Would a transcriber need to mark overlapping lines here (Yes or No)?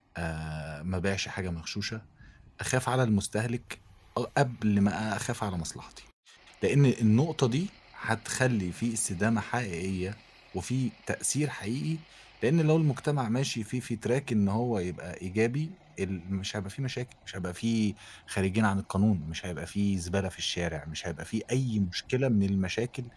No